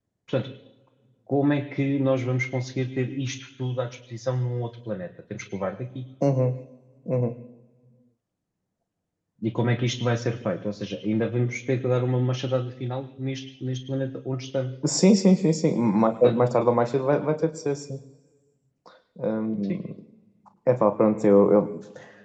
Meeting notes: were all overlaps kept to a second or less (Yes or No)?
Yes